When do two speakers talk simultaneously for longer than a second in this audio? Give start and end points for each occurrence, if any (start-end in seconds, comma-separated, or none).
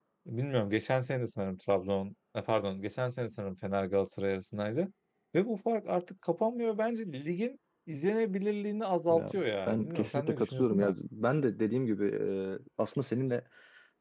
9.1-10.9